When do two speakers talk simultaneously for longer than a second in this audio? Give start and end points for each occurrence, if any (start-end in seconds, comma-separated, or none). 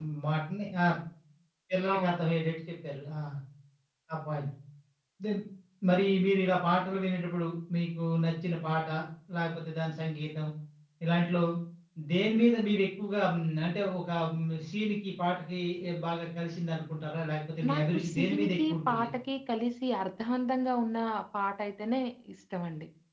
17.7-19.1